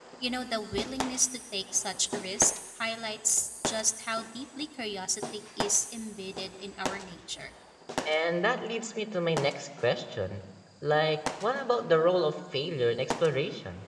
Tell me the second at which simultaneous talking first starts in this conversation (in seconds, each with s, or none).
none